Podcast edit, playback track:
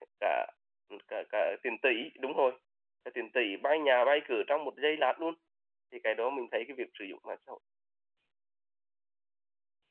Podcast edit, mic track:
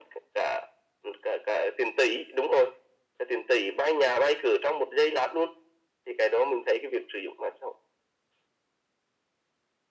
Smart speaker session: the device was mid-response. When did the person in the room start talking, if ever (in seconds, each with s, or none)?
none